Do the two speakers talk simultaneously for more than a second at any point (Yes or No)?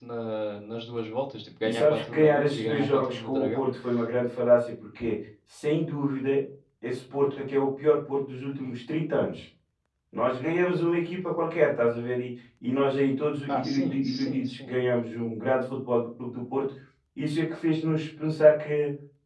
Yes